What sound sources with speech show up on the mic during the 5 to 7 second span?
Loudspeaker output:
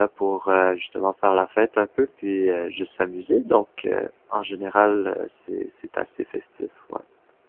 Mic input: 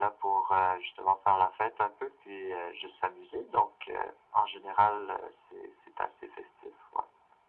echo only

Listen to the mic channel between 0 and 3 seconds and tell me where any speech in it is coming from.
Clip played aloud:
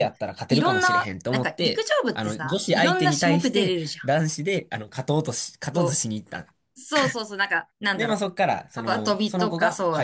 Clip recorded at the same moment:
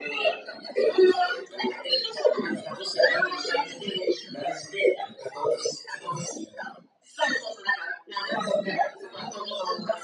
echo only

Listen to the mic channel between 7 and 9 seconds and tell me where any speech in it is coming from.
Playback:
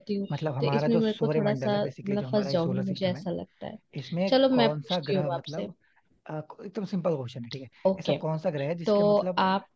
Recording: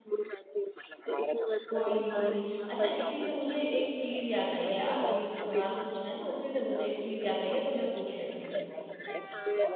both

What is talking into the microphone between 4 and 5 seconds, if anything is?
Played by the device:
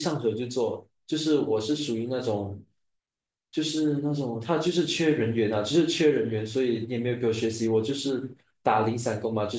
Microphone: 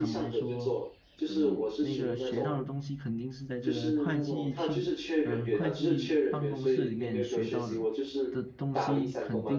both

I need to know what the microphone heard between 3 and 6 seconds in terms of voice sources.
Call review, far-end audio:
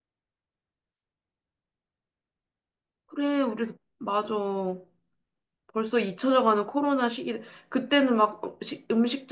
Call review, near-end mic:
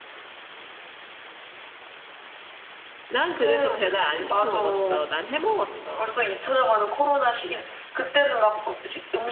both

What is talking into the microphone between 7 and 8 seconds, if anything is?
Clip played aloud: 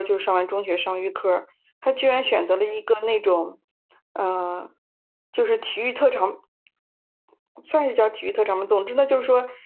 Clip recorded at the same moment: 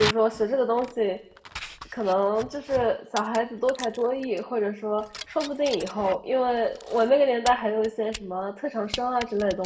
user only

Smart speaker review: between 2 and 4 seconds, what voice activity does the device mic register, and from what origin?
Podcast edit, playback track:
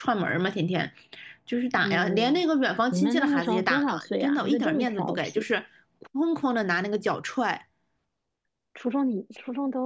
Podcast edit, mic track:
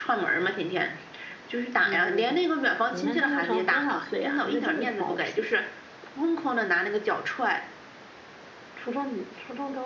echo only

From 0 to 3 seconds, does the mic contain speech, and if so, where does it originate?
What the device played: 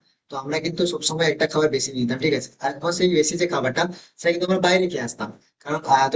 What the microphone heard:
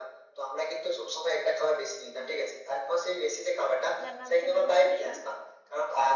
echo only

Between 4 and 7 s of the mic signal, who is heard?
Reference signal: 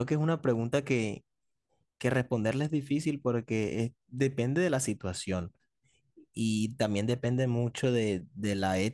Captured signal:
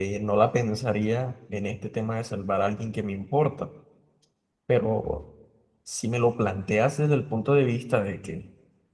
user only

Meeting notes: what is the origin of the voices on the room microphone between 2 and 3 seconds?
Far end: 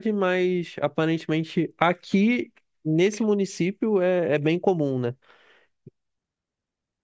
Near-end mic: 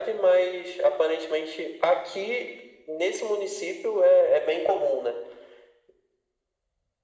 echo only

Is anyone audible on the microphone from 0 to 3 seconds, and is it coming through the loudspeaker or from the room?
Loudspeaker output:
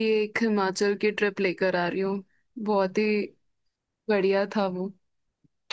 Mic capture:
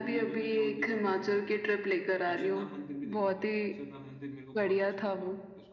both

